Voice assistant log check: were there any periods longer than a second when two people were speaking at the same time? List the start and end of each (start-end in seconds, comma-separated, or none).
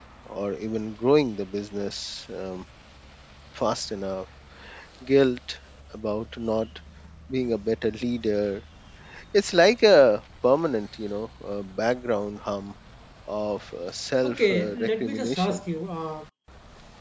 14.2-15.6